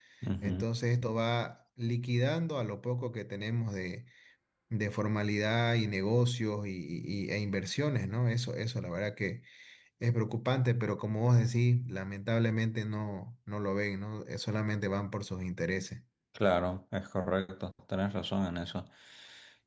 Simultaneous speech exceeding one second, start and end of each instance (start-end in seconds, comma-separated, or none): none